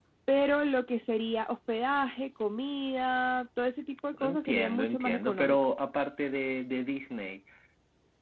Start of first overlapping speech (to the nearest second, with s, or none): 4 s